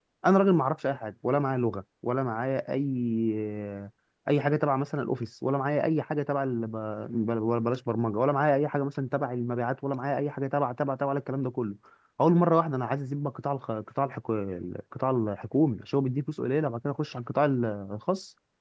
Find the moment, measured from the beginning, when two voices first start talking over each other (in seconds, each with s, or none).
none